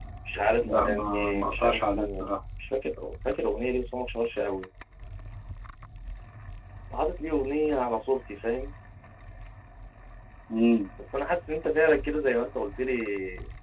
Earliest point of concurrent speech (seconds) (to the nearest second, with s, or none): 1 s